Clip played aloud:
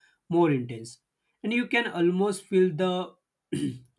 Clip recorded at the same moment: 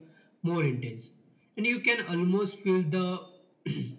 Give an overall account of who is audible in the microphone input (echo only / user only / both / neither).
echo only